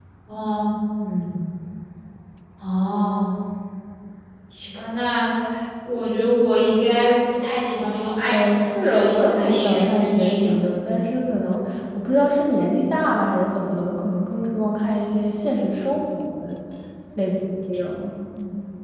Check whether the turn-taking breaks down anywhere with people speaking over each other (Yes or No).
Yes